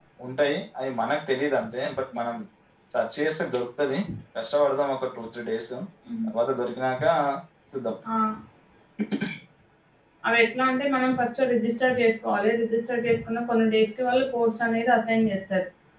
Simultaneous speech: No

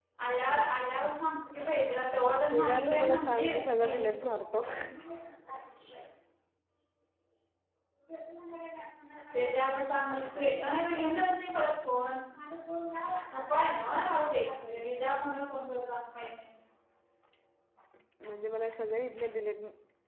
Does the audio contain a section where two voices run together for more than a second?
Yes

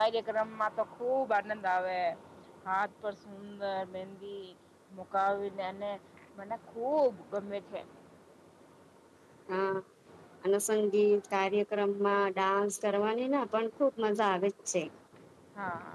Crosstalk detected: No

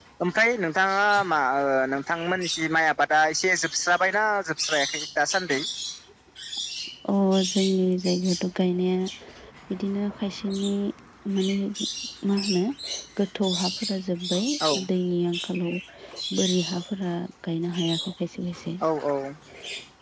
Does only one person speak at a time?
Yes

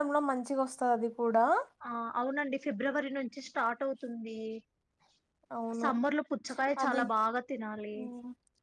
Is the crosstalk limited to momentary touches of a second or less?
Yes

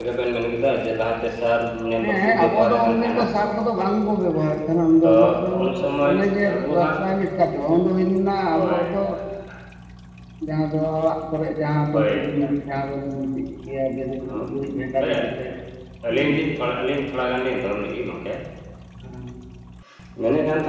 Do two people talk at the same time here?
Yes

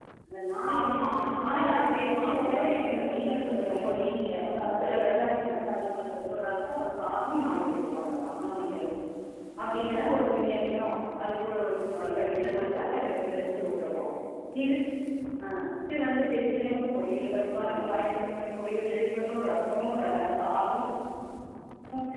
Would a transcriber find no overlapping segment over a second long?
No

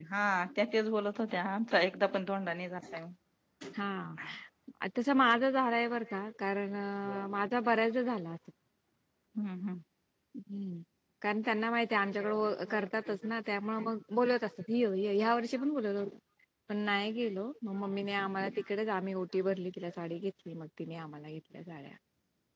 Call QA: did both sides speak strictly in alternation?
Yes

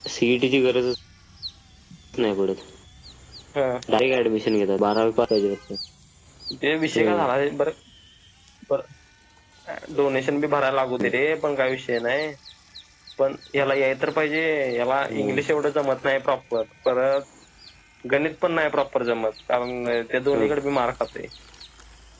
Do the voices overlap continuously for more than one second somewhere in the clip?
No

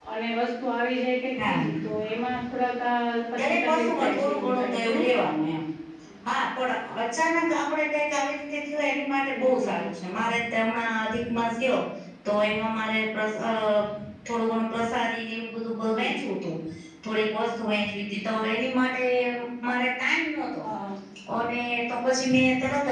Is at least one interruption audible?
Yes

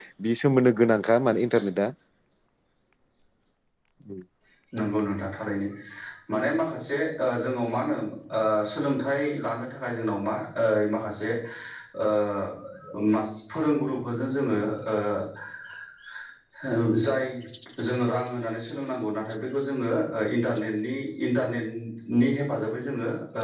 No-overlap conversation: Yes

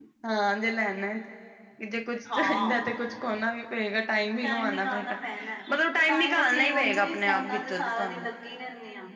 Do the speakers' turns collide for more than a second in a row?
Yes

